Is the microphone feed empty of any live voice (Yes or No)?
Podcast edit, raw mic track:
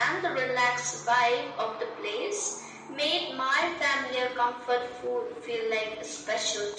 Yes